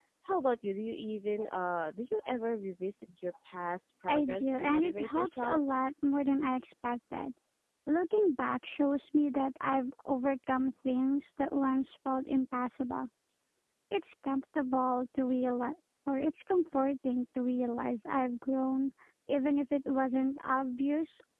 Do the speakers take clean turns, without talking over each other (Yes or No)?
No